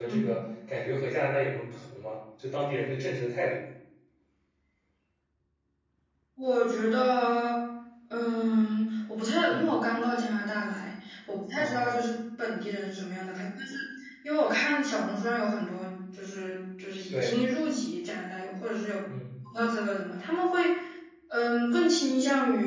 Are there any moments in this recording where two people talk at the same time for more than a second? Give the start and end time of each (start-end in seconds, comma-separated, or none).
none